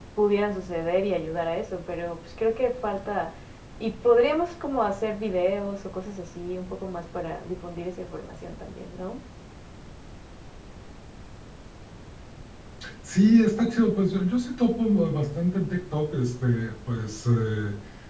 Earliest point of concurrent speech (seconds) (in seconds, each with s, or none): none